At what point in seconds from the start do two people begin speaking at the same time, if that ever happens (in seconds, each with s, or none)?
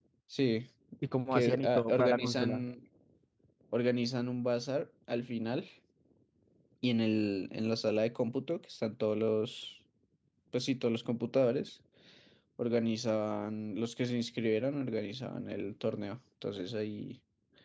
1.3 s